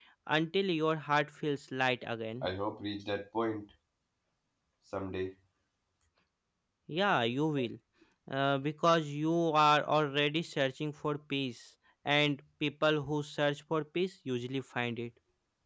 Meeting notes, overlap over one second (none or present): none